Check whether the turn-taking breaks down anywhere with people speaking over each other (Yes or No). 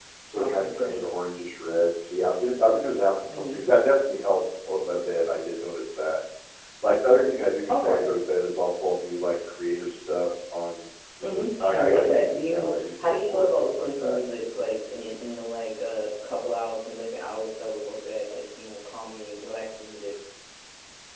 Yes